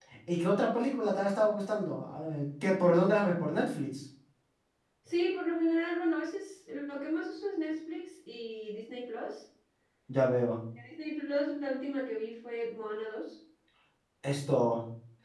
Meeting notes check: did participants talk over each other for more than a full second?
No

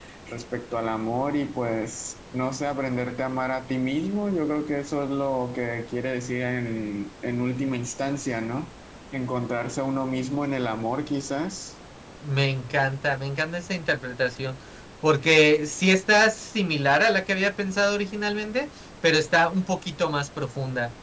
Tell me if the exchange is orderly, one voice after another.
Yes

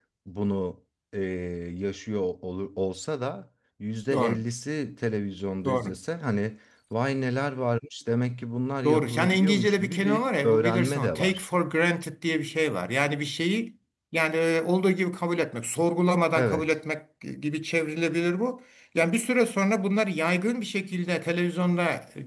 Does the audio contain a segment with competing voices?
Yes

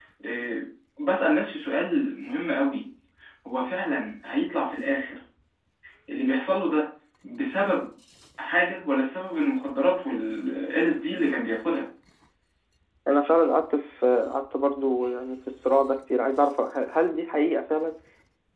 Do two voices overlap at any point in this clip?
No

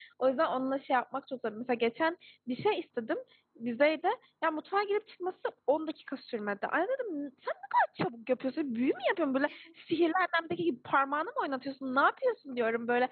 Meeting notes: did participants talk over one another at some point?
No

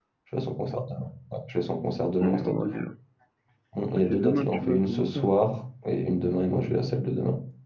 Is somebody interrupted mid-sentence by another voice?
Yes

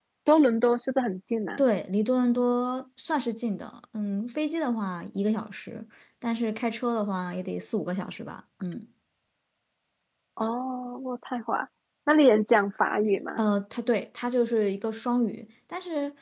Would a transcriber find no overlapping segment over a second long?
Yes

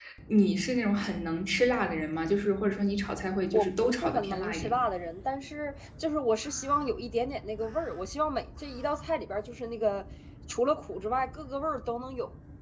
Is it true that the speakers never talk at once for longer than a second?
No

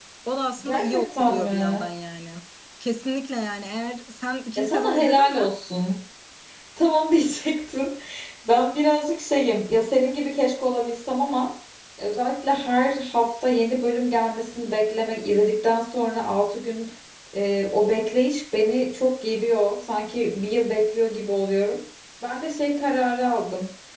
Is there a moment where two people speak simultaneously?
Yes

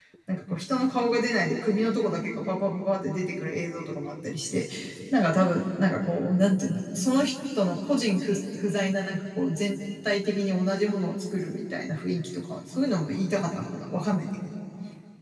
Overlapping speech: No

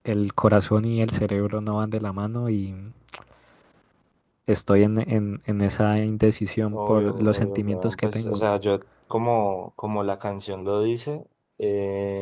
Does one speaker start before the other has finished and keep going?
Yes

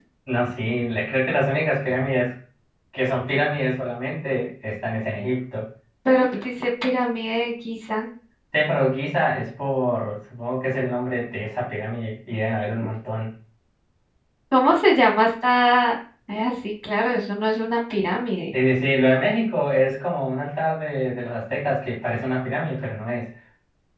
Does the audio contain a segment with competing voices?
No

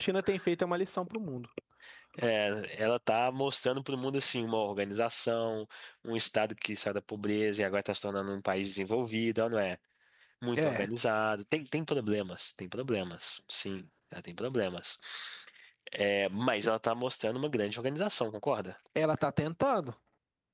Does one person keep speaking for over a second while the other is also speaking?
No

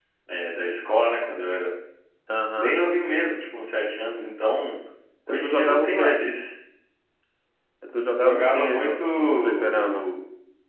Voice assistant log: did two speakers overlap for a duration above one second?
Yes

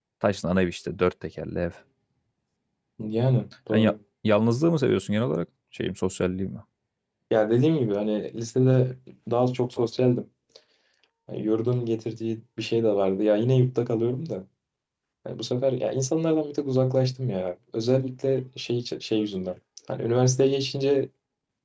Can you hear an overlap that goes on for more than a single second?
No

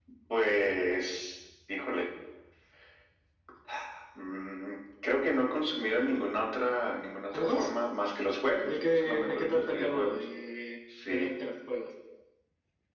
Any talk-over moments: Yes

